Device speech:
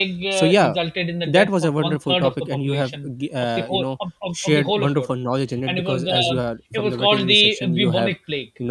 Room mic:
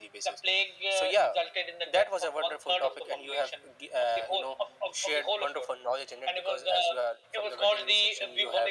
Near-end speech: none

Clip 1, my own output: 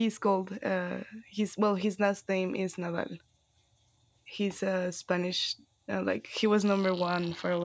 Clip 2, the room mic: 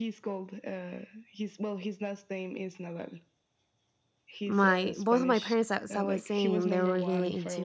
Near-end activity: present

